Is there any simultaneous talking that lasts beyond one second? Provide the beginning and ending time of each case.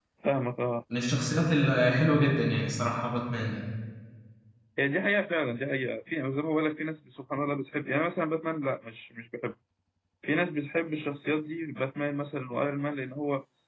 none

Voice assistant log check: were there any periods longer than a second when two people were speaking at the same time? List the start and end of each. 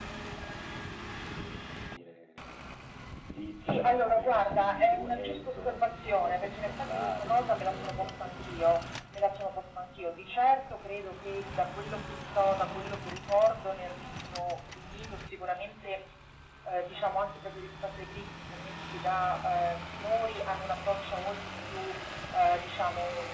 3.7-8.8

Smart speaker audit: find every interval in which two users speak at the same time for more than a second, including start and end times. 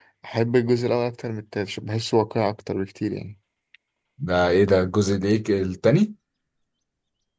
none

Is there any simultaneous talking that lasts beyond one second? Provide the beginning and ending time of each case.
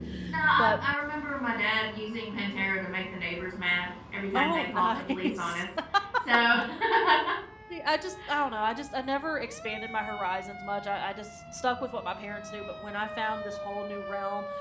4.3-5.6

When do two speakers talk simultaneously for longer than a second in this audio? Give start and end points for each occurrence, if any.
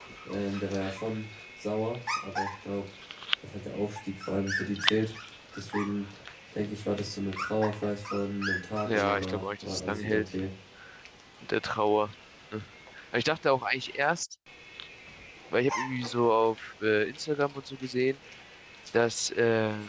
8.9-10.2

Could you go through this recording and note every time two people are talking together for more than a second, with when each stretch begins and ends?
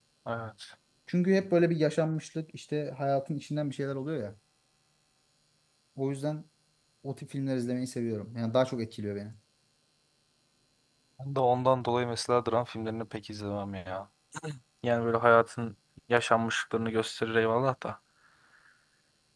none

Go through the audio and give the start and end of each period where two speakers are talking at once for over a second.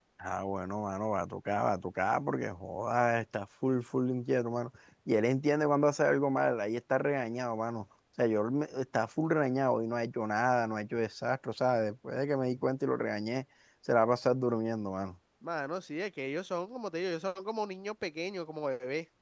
none

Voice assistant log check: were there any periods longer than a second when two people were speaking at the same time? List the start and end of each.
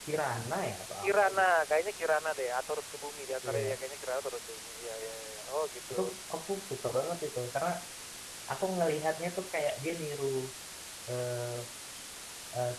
none

